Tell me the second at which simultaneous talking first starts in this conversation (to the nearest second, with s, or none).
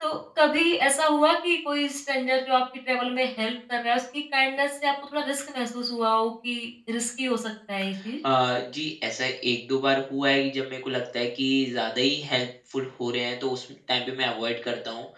none